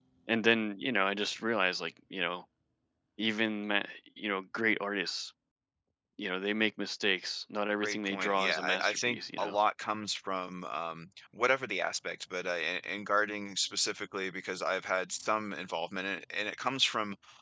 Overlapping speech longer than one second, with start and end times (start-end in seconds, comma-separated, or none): 7.8-9.6